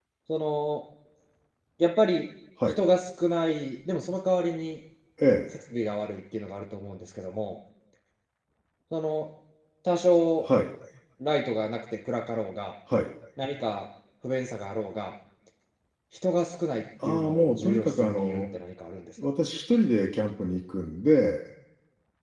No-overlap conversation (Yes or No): No